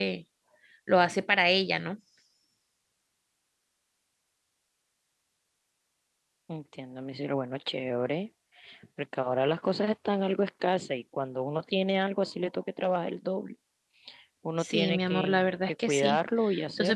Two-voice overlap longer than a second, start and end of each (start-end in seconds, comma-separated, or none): 14.6-16.2